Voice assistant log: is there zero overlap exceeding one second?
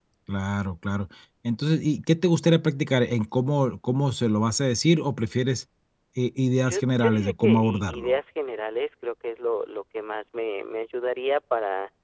No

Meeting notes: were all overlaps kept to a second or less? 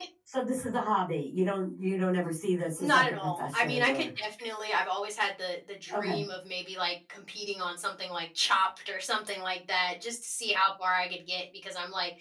No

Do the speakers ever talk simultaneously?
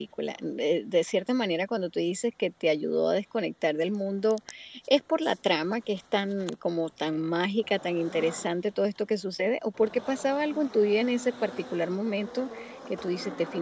No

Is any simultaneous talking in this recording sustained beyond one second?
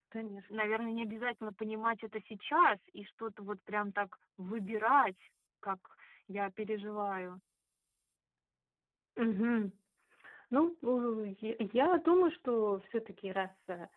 No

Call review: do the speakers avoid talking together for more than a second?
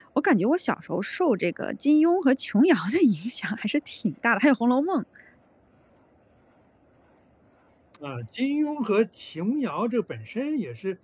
Yes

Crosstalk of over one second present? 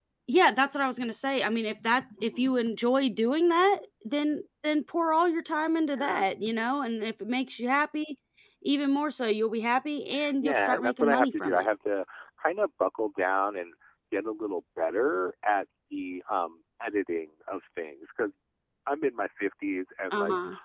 Yes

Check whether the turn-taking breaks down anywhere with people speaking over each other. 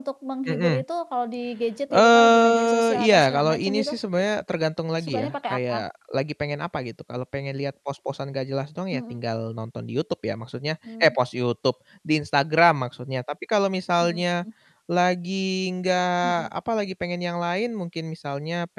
Yes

